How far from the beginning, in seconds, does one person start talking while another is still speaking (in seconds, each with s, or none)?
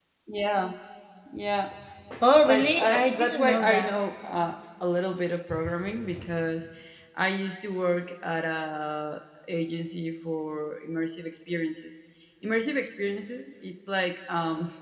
2.4 s